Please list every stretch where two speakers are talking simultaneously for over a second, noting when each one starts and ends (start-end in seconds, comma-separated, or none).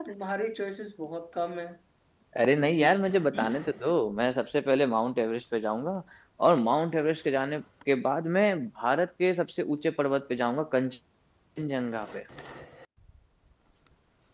none